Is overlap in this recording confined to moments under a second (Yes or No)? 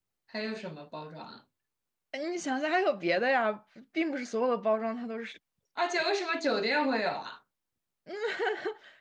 Yes